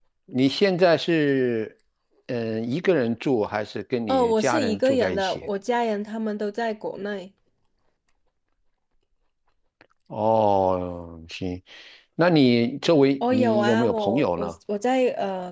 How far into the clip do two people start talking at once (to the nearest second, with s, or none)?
4 s